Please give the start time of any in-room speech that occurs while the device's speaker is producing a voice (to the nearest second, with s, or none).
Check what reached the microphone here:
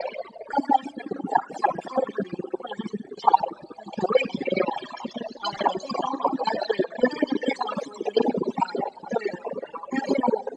none